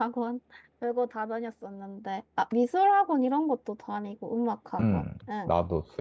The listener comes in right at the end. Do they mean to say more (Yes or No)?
Yes